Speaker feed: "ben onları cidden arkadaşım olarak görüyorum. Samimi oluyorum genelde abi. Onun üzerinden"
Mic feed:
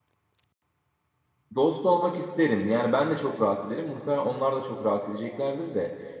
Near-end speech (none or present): present